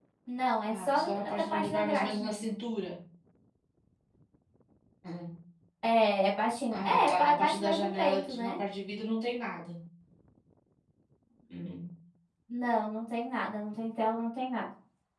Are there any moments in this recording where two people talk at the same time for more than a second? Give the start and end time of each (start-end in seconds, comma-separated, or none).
0.8-2.6, 6.8-8.6